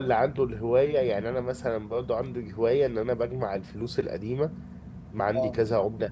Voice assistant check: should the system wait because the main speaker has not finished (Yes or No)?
Yes